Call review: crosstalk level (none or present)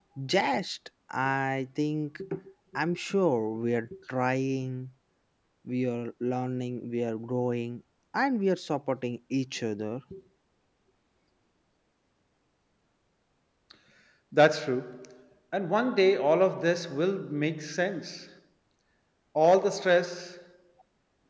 none